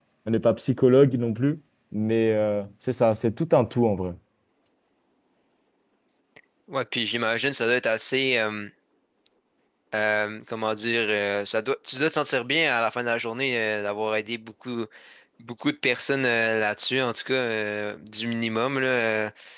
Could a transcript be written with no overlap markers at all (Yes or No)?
Yes